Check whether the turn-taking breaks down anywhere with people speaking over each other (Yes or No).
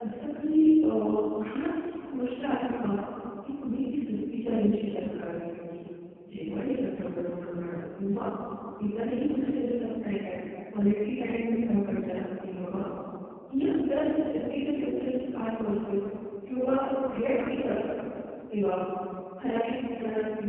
No